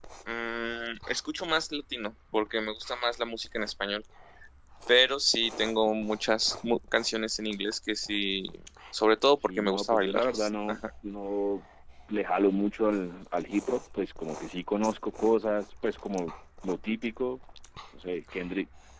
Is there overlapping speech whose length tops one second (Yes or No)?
Yes